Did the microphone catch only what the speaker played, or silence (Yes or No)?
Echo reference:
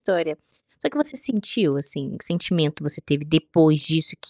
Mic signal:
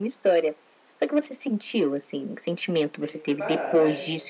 No